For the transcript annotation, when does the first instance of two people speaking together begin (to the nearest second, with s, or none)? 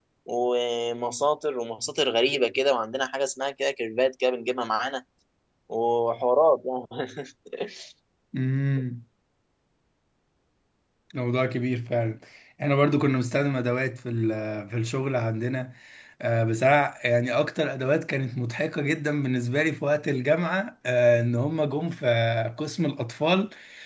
none